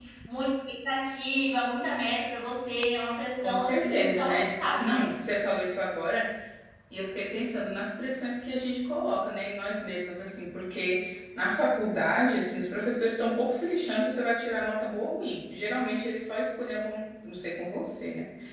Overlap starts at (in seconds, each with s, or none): 3.4 s